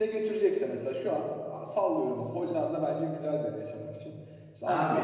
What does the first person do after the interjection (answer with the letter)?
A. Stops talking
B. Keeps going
B